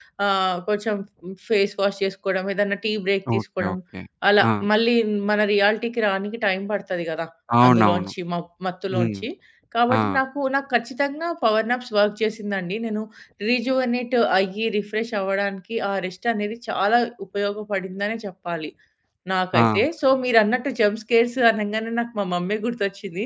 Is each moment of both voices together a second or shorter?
Yes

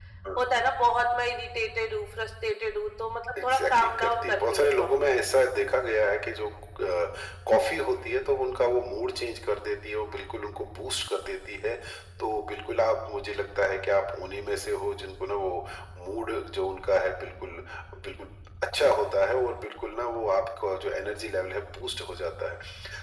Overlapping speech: Yes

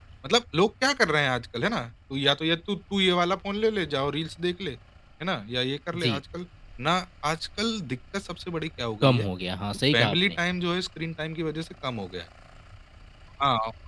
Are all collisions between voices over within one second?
Yes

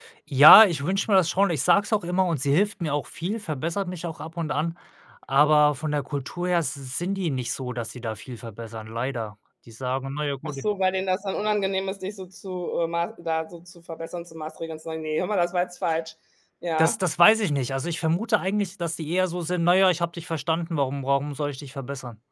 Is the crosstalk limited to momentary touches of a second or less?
Yes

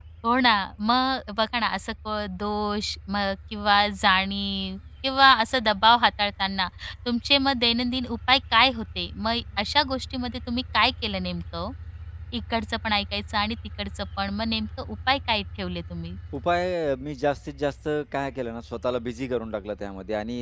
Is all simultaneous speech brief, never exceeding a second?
Yes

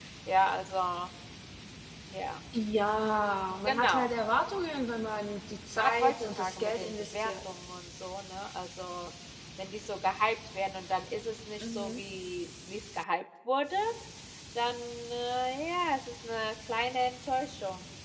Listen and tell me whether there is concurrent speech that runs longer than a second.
Yes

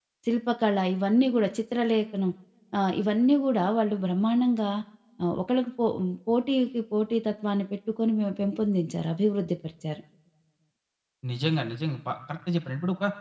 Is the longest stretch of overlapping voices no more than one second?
Yes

